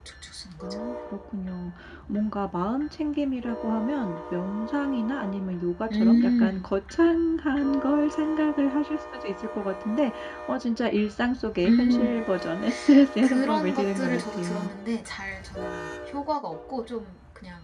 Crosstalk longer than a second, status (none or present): present